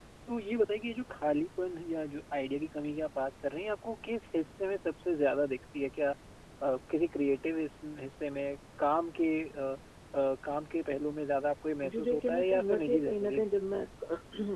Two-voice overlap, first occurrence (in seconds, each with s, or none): 11.8 s